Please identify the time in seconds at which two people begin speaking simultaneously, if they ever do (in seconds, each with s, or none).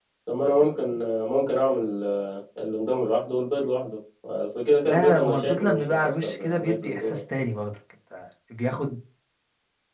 4.9 s